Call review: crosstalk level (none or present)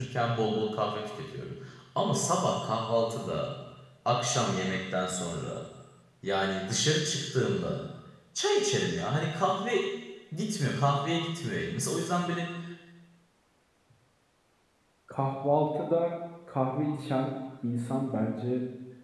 none